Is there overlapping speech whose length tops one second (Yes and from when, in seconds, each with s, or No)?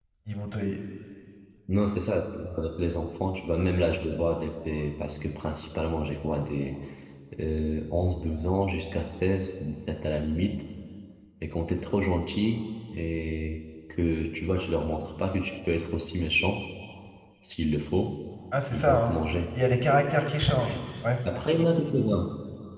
No